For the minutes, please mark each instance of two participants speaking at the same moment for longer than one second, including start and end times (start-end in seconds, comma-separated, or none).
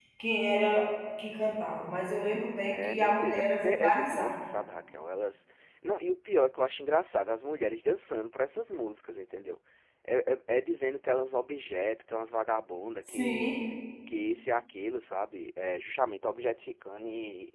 2.7-4.3